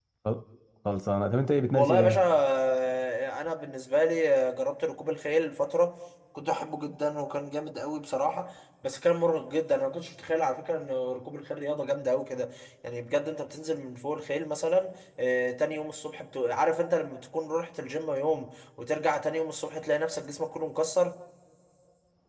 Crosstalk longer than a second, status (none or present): none